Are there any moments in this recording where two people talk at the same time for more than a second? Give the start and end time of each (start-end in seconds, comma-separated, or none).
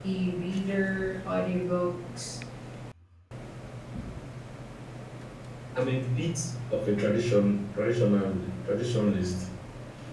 none